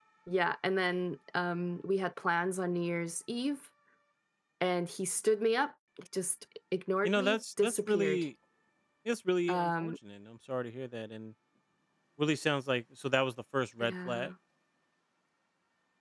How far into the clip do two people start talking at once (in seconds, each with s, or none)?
7.0 s